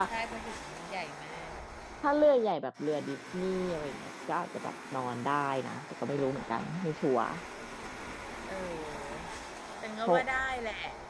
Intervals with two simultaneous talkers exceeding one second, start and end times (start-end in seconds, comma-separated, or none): none